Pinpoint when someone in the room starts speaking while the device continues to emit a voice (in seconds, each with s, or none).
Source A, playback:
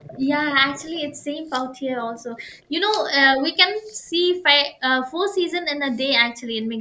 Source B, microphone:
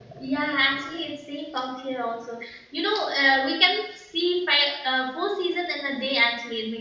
none